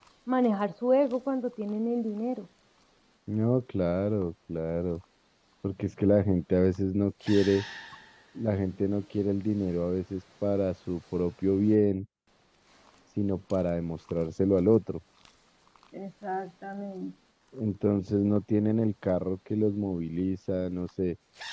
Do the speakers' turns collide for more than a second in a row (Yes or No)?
No